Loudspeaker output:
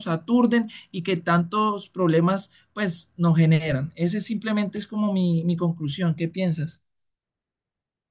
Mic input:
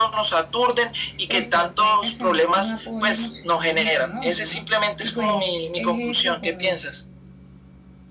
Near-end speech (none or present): present